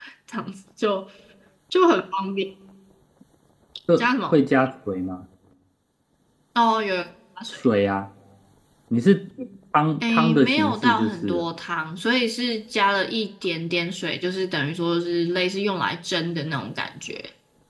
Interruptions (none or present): present